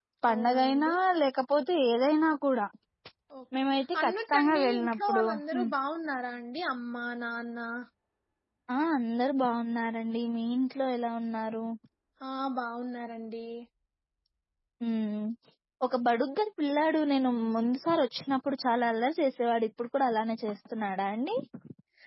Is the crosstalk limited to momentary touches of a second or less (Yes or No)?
No